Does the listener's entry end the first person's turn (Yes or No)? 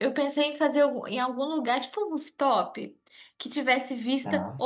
No